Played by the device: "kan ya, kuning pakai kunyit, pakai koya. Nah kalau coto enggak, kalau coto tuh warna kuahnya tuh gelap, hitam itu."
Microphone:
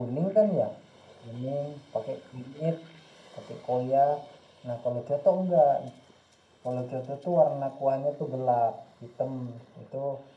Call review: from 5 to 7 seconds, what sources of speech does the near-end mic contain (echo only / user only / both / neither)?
echo only